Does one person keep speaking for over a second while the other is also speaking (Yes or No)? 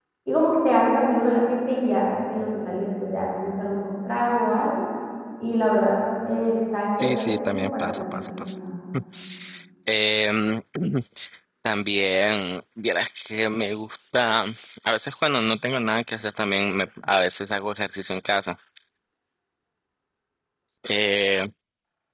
Yes